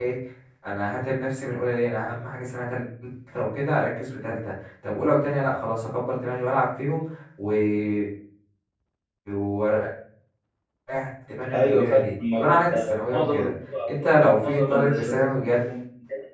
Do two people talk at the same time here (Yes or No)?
Yes